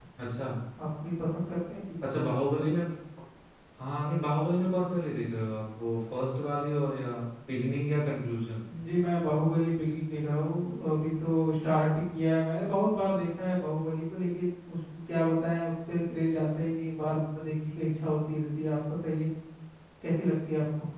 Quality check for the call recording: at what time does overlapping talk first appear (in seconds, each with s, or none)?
none